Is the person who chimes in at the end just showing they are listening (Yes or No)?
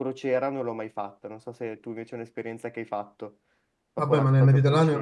No